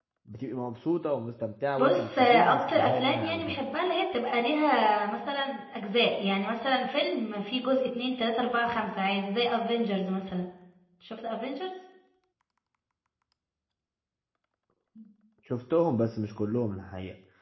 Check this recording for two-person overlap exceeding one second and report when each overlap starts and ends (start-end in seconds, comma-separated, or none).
1.8-3.6